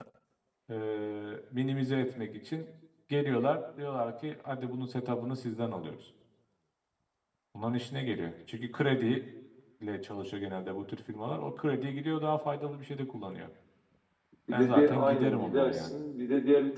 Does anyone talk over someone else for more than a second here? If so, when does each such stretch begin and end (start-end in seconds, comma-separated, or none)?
14.5-15.9